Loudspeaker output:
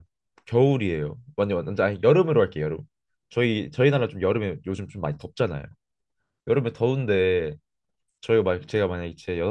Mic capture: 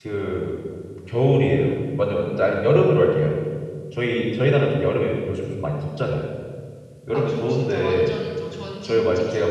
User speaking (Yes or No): Yes